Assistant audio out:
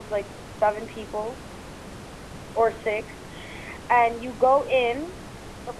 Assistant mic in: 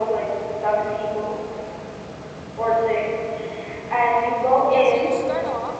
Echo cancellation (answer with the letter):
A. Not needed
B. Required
B